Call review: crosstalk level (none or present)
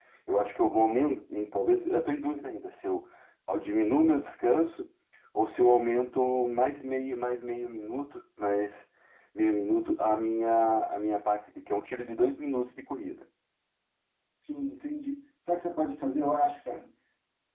none